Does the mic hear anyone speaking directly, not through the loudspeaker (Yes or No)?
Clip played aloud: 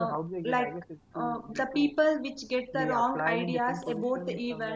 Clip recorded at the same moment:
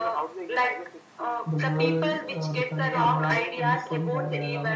Yes